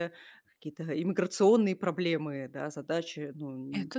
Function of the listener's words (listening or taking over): listening